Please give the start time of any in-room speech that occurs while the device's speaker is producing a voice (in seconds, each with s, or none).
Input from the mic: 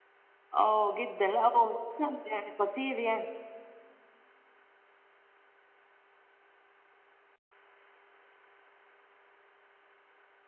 0.5 s